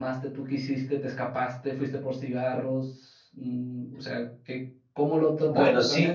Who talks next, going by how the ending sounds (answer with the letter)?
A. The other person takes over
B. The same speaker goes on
A